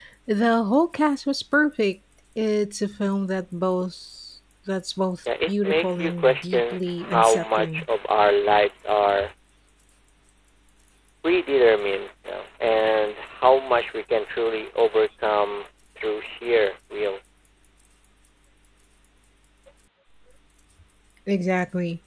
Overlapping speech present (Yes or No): Yes